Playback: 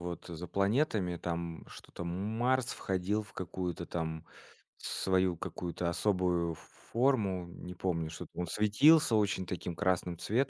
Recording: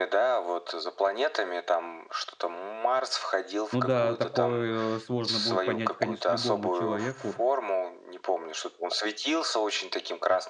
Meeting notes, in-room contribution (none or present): present